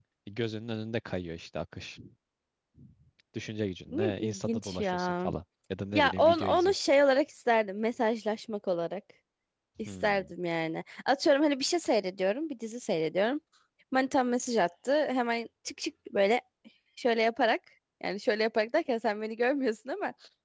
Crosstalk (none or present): present